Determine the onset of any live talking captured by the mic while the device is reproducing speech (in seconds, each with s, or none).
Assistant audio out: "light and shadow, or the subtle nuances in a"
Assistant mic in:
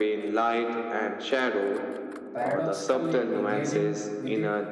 2.3 s